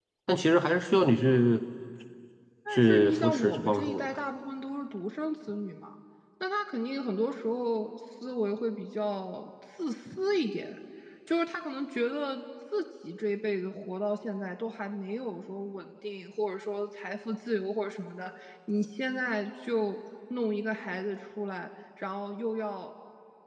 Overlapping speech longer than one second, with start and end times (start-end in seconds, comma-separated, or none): 2.7-4.1